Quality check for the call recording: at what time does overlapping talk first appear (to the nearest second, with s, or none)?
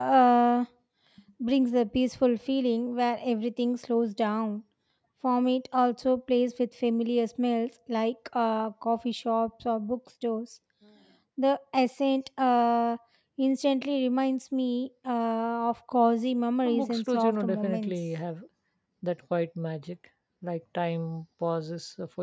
17 s